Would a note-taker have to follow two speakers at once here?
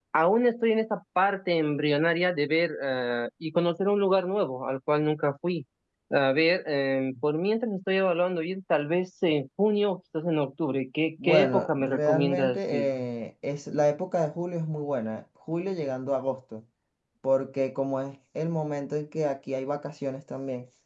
Yes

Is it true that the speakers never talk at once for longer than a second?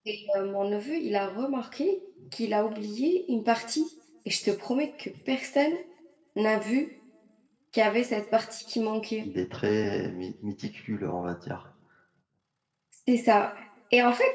Yes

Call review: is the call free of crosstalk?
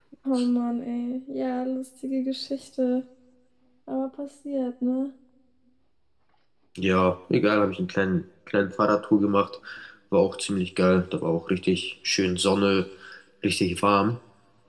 Yes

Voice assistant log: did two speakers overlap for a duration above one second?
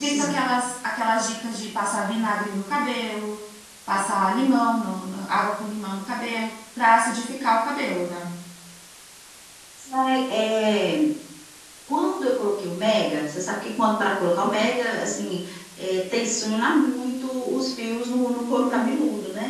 No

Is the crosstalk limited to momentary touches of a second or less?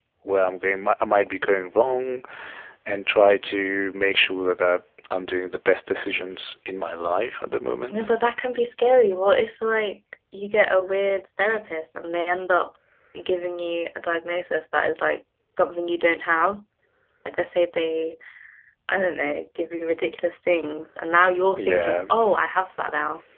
Yes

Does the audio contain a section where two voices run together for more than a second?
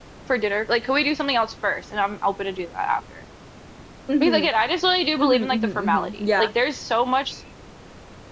Yes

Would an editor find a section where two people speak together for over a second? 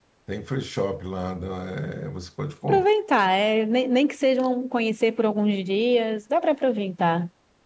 No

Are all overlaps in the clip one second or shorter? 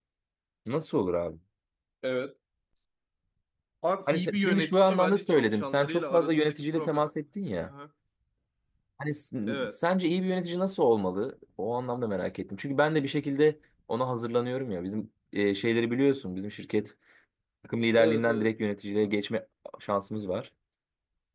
No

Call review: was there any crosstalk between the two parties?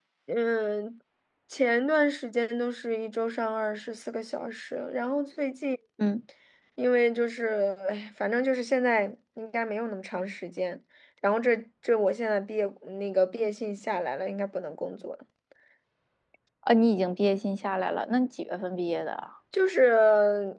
No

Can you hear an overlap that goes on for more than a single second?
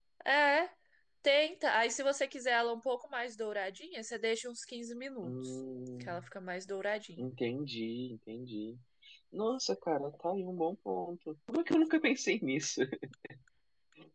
No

